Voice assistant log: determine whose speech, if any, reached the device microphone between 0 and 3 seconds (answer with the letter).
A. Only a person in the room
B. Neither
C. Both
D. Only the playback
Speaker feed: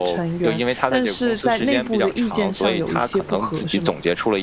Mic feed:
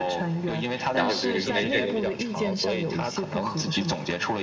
C